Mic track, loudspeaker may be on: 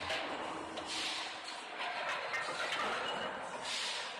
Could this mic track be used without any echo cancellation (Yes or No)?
Yes